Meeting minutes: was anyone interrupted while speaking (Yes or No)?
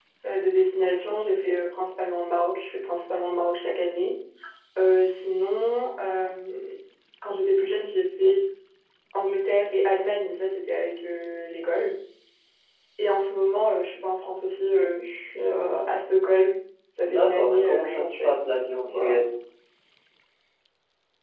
Yes